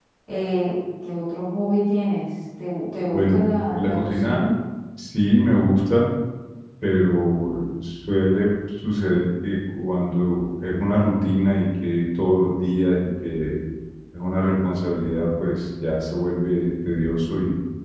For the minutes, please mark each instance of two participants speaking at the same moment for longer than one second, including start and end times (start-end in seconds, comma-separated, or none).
3.1-4.5